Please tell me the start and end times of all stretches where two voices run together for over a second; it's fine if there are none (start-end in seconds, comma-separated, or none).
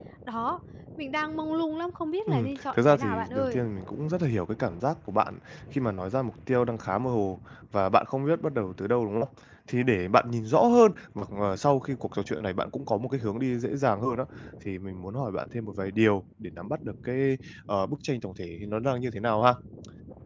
2.3-3.6